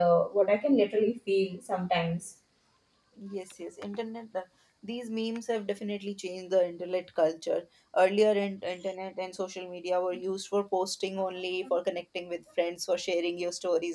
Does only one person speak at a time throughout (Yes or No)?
Yes